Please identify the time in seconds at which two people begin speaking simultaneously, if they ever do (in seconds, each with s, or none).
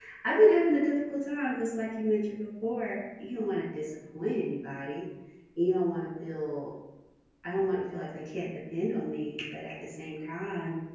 none